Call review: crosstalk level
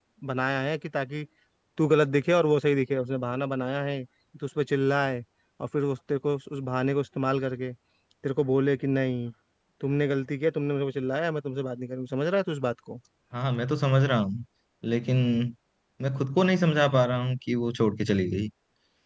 none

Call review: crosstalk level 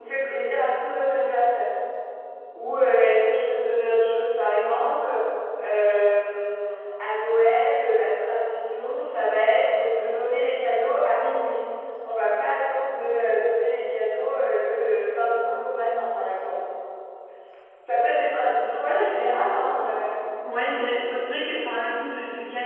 none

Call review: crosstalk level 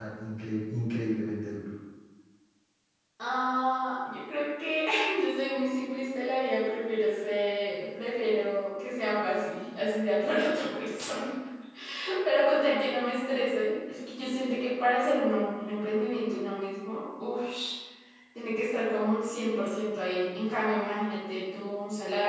none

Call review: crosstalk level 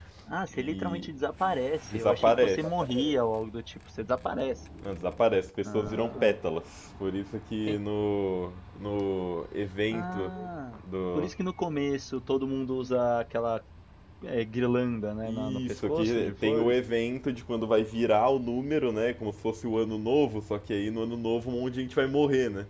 present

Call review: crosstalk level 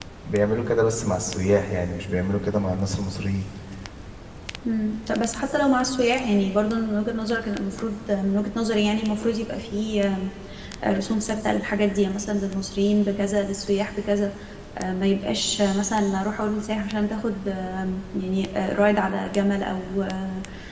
none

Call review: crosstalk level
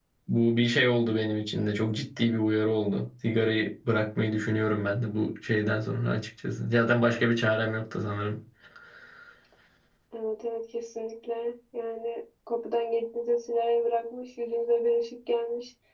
none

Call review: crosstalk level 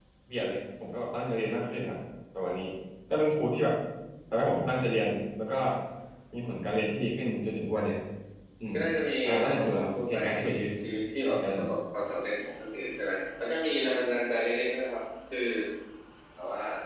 present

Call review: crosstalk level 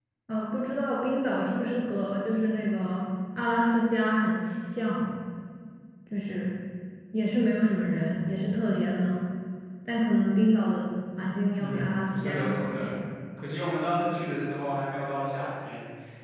present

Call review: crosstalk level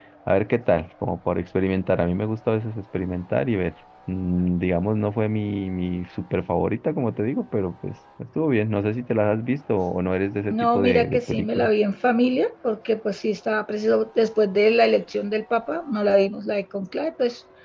present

